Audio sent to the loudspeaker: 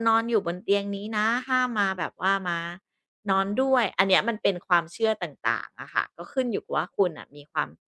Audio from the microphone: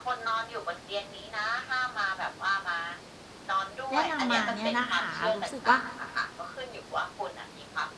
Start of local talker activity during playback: 3.9 s

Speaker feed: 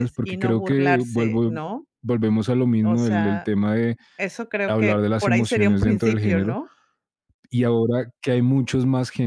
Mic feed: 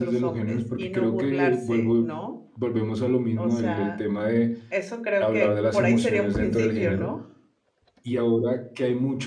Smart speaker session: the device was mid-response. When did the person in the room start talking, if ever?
none

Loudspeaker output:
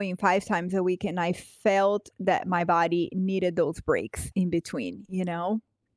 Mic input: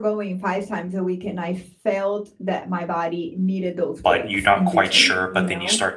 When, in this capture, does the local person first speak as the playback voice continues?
4.0 s

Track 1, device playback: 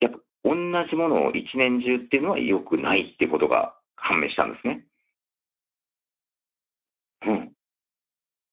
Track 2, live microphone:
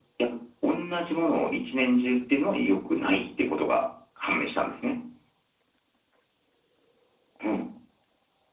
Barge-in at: none

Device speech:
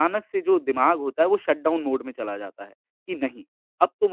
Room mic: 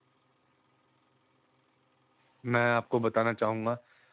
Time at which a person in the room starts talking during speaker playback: 2.4 s

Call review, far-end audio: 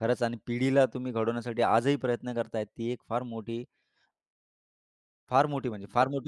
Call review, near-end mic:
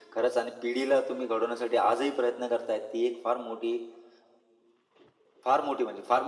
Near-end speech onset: none

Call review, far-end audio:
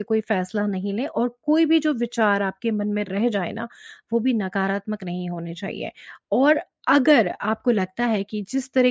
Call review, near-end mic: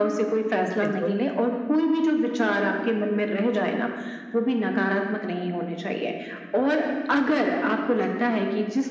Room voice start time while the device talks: 0.6 s

